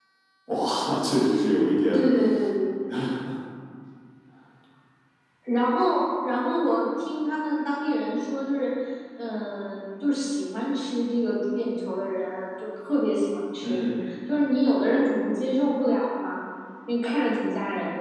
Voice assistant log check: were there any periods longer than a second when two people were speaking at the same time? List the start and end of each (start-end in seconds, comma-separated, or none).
none